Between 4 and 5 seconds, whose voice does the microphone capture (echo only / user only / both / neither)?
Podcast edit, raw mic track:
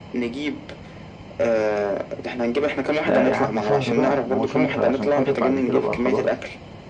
both